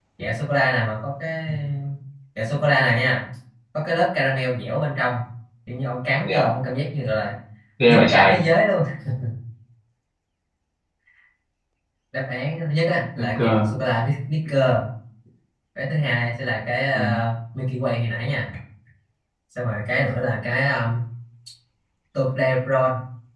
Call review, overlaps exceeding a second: none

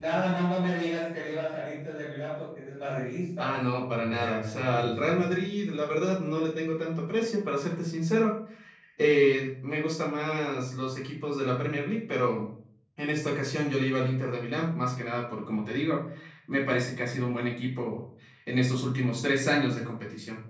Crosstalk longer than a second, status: present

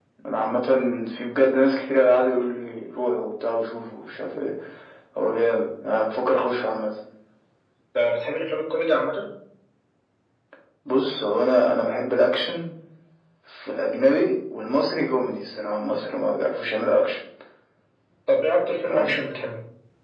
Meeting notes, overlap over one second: none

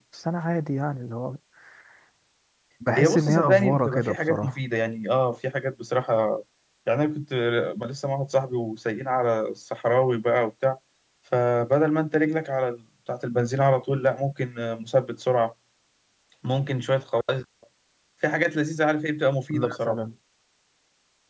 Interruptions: present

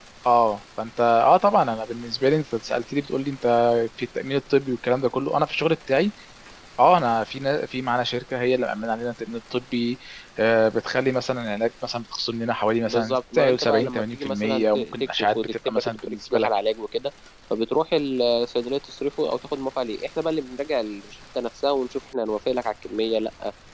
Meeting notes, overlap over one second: present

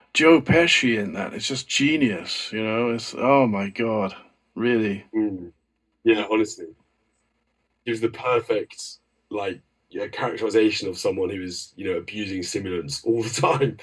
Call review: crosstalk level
none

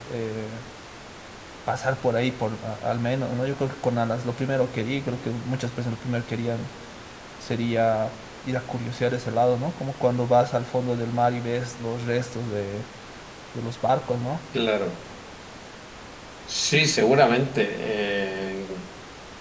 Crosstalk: none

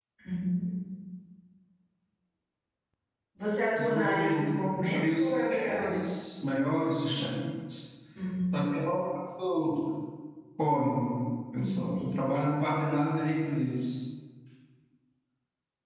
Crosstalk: present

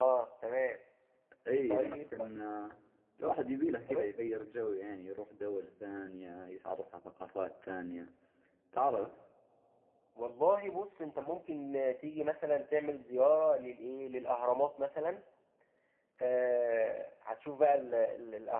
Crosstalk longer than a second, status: none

